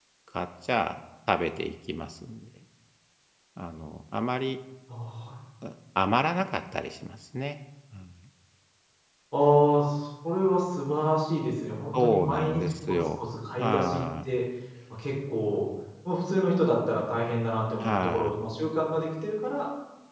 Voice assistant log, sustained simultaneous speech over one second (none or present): present